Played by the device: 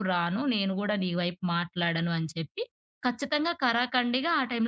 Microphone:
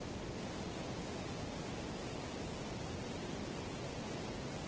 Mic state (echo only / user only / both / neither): neither